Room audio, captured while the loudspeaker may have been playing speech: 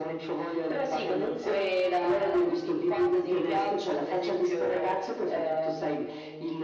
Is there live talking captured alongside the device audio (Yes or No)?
No